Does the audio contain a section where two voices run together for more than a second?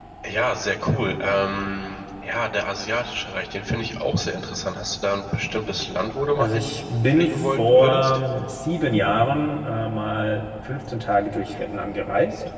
Yes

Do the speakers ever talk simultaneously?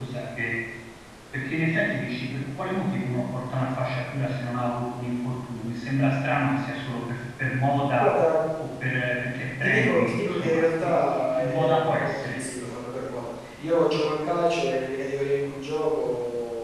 Yes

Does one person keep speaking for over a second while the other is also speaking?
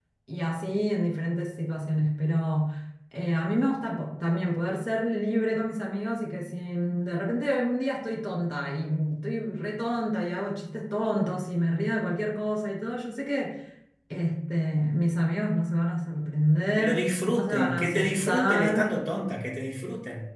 Yes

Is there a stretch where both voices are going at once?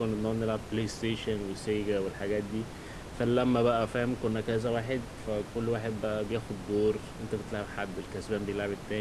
No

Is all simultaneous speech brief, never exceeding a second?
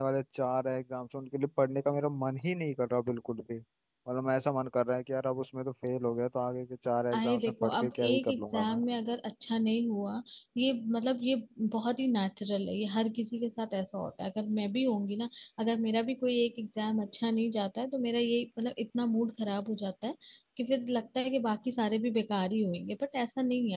No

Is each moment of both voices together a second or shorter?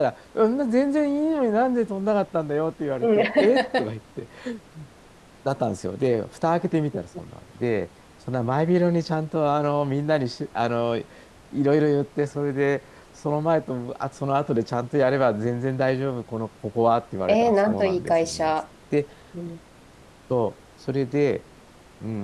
No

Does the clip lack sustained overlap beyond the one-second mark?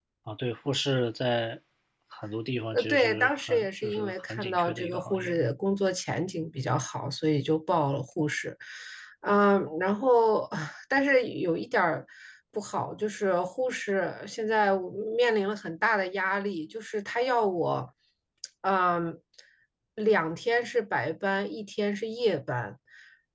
No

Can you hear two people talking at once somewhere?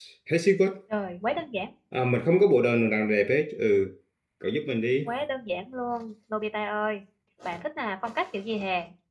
No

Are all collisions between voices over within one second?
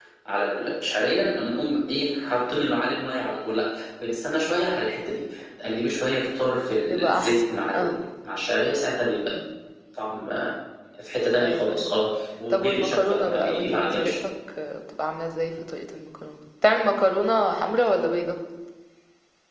No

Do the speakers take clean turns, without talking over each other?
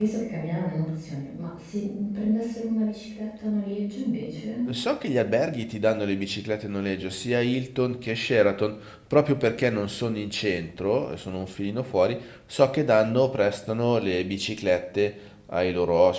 Yes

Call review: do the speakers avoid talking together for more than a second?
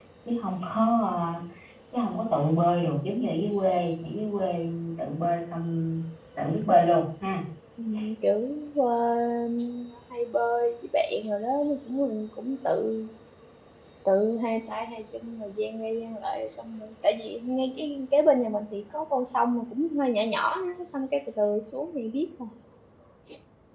Yes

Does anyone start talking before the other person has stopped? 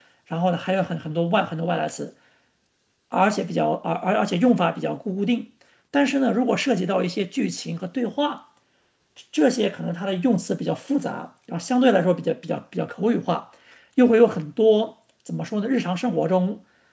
No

